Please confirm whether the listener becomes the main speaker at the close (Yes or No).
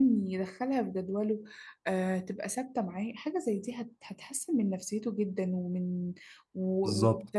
No